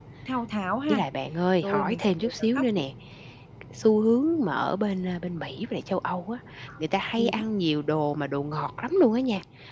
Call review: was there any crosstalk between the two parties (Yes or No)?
Yes